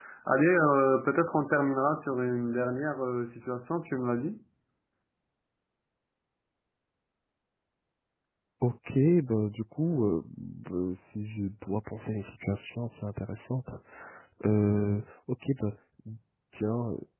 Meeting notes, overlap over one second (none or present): none